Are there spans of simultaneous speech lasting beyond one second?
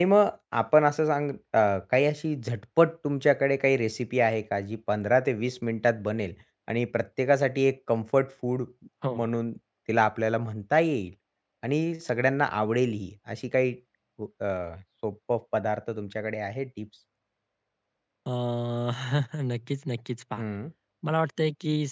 No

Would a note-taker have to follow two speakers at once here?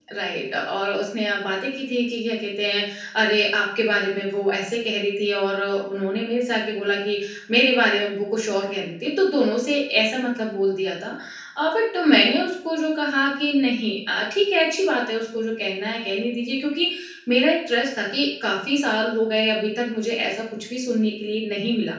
No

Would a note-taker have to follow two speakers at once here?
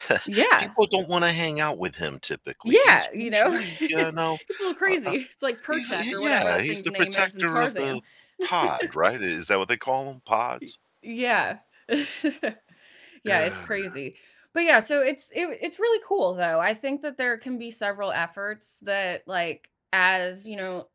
Yes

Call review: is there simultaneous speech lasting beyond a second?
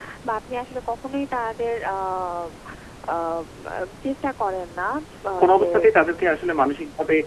No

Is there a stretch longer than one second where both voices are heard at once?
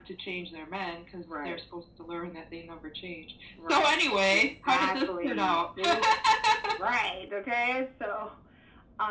Yes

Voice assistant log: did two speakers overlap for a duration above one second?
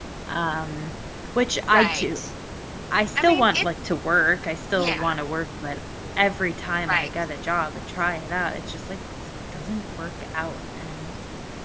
No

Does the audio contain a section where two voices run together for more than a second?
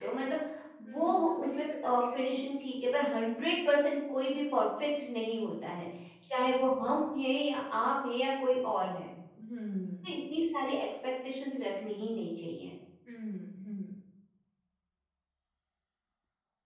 Yes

